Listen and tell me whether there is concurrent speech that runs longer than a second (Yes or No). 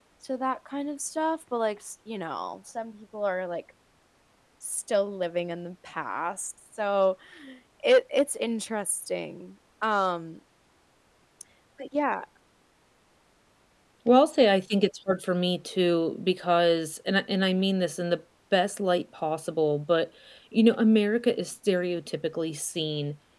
No